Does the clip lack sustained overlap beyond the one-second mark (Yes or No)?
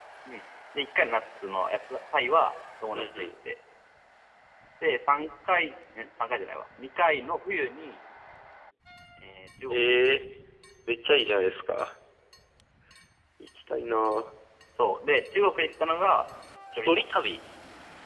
Yes